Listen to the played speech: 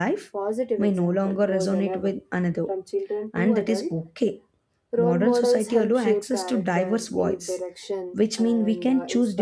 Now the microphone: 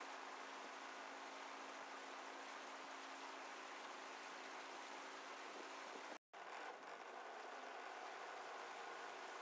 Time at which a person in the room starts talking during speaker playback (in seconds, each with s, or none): none